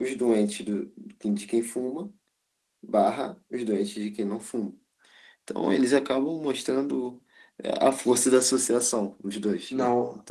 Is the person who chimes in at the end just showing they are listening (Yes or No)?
No